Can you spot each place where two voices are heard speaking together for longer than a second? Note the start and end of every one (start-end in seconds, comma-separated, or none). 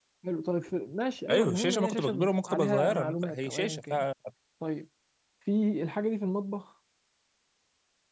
1.3-4.0